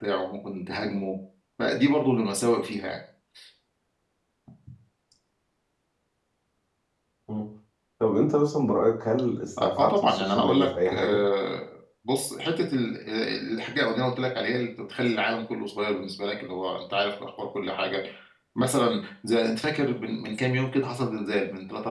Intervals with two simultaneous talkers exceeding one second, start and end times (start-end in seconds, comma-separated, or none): 9.6-11.2